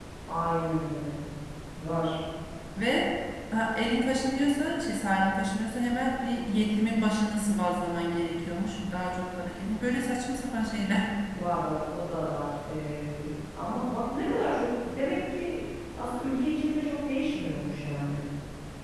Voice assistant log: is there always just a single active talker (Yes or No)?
Yes